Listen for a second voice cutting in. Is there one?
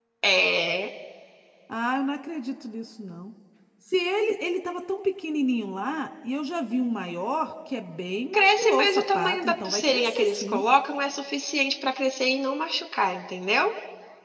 Yes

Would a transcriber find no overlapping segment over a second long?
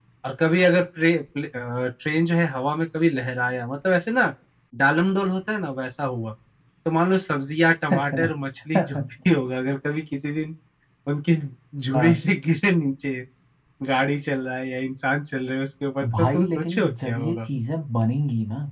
No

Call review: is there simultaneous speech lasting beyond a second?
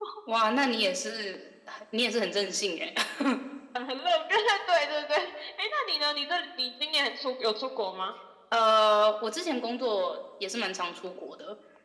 No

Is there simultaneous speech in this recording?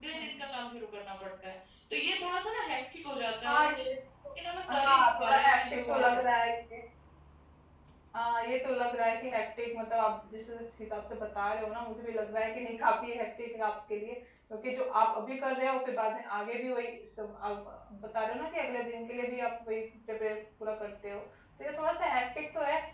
Yes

